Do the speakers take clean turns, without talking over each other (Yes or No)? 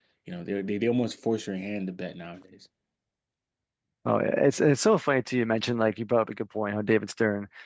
Yes